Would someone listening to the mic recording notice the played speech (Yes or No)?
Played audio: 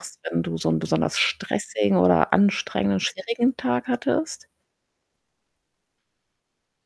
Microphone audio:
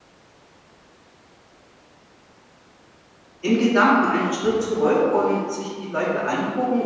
No